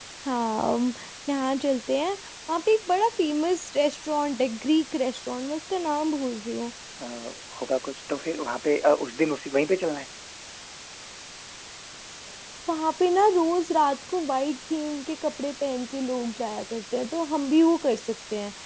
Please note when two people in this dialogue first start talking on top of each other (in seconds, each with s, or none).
none